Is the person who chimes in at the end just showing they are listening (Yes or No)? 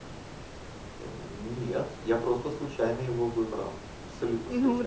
No